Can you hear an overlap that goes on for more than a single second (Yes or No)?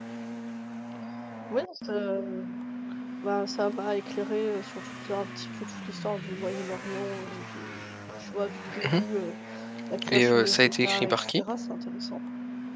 Yes